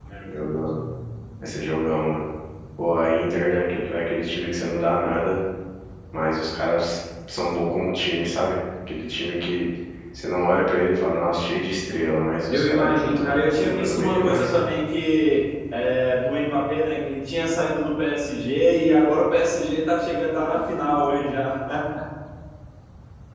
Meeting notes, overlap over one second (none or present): present